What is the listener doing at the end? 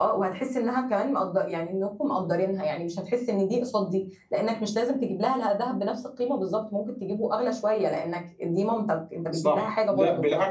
taking over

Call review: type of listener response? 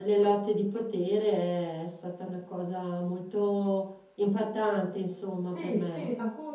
taking over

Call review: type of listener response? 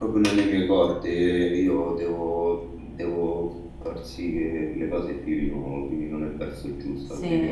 taking over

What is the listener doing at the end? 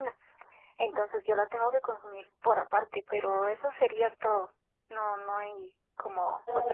taking over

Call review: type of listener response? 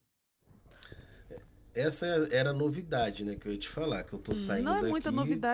taking over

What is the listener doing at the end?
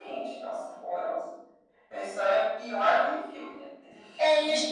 taking over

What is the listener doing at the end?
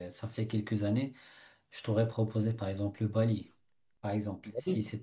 listening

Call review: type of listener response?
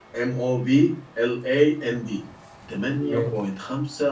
listening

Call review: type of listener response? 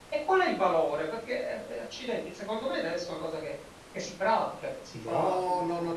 taking over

